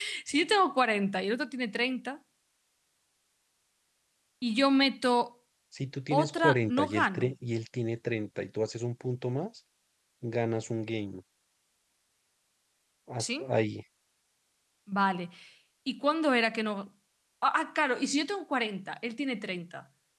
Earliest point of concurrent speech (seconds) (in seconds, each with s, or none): 6.1 s